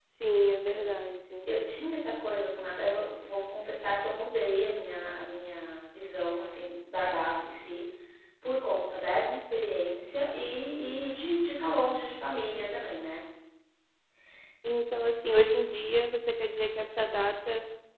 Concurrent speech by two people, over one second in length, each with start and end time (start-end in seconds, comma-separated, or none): none